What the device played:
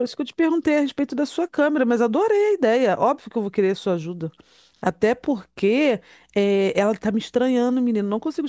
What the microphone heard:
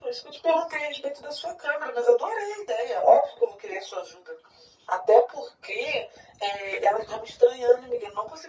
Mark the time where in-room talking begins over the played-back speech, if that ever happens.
none

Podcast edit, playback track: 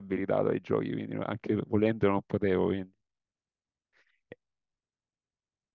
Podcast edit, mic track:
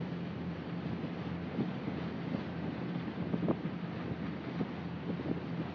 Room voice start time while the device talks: none

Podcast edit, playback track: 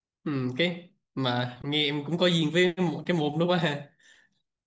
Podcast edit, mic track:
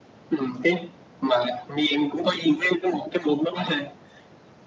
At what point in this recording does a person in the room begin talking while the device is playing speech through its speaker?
none

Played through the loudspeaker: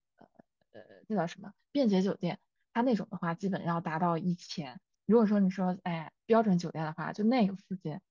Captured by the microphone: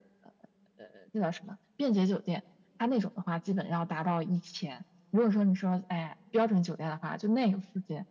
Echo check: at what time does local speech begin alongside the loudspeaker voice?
none

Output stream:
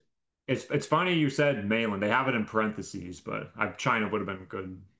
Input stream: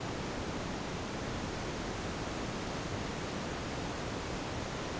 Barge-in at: none

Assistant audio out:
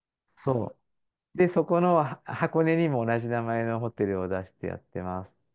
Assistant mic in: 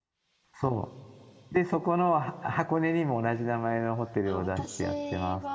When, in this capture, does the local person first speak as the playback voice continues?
4 s

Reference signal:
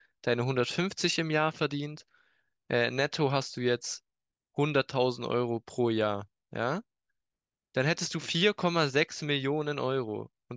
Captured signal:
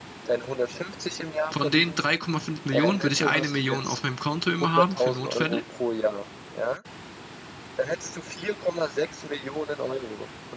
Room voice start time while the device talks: 2 s

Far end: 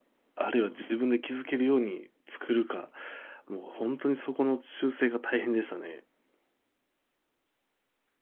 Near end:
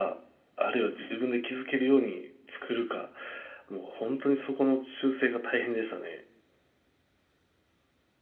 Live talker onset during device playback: none

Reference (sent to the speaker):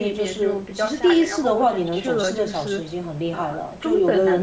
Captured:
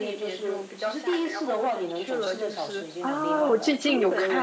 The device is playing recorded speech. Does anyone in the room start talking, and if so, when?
3 s

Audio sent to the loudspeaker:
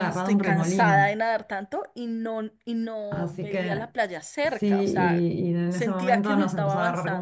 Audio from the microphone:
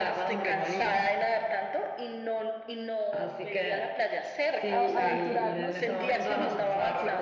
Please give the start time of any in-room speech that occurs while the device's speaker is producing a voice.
5 s

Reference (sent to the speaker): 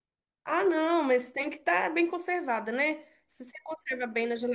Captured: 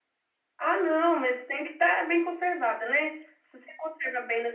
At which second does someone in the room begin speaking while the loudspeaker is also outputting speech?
none

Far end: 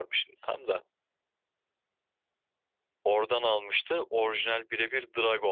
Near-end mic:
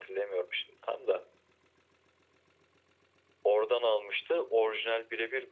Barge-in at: none

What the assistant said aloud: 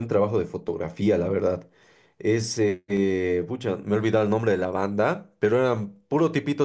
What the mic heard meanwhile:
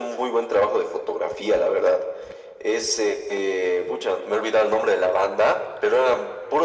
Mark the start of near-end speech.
none

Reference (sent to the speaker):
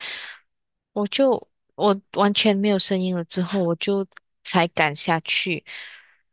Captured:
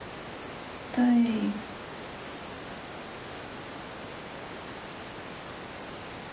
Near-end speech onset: 1 s

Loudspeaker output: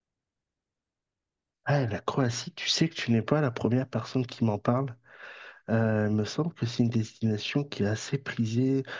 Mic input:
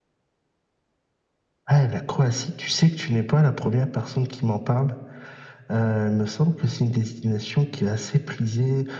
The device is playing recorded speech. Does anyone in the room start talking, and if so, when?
none

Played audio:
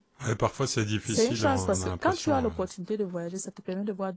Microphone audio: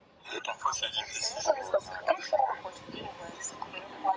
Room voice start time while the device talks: none

